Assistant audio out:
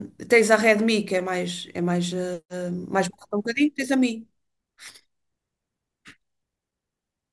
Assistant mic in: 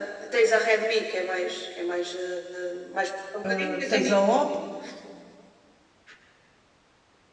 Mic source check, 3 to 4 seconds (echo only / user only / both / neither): both